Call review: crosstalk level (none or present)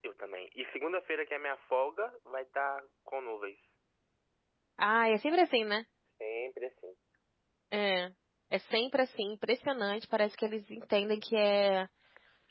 none